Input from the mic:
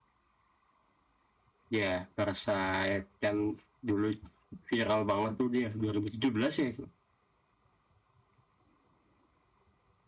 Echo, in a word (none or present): none